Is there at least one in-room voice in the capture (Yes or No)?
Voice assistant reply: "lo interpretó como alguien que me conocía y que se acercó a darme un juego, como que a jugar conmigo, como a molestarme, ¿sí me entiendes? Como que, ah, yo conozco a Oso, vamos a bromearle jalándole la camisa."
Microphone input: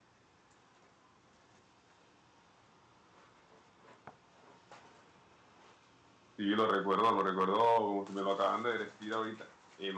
Yes